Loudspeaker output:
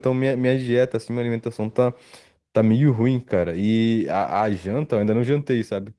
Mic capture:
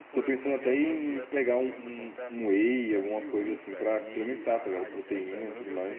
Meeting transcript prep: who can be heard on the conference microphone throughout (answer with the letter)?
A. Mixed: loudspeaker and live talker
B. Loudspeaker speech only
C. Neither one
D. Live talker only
A